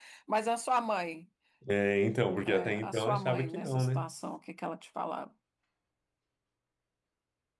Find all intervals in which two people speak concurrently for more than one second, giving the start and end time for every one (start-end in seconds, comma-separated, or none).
2.5-4.1